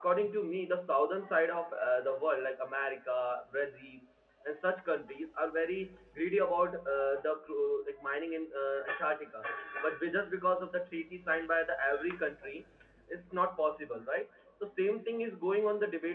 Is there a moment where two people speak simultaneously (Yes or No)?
No